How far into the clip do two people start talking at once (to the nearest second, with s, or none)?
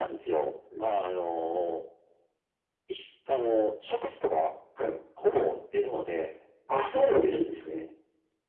none